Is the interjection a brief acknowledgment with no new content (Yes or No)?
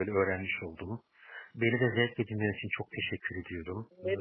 No